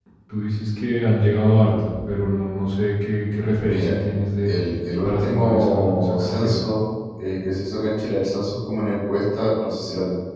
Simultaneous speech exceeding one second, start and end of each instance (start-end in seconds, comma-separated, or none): 5.0-6.6